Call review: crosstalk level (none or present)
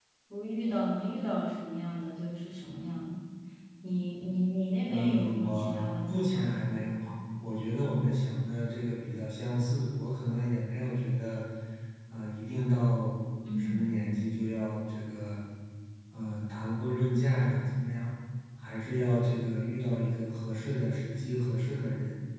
present